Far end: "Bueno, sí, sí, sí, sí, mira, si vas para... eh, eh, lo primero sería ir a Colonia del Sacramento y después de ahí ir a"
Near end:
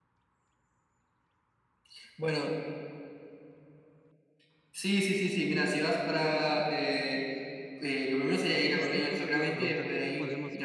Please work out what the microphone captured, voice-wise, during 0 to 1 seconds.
neither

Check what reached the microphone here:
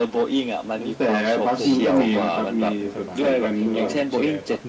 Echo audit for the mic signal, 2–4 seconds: both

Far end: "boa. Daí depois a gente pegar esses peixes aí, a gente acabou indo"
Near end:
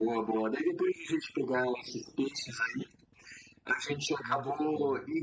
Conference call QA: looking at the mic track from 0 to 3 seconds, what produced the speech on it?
echo only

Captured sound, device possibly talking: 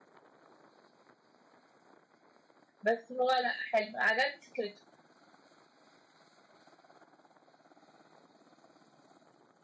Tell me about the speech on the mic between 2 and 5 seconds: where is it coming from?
user only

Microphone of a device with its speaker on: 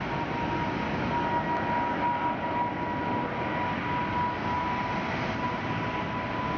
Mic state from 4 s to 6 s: neither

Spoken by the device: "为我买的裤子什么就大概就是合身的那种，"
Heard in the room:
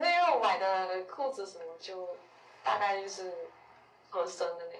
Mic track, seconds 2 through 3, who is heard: echo only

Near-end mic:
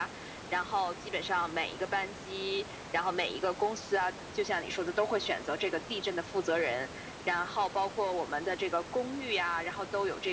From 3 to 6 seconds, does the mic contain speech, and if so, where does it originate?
echo only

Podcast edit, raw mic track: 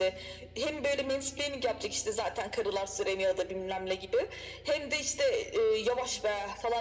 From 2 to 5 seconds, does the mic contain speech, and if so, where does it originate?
echo only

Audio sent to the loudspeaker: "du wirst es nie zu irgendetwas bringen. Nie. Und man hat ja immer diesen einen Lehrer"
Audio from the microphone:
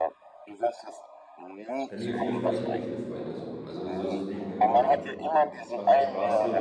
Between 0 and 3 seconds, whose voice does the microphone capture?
both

